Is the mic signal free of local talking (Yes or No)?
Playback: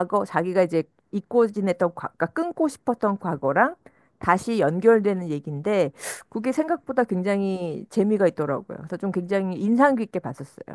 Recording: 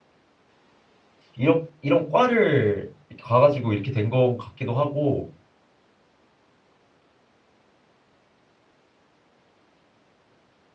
No